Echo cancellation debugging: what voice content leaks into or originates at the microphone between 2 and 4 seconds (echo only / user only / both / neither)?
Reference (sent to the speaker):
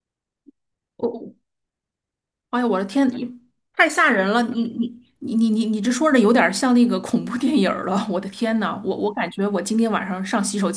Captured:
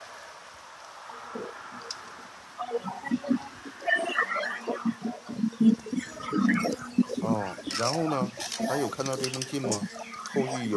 echo only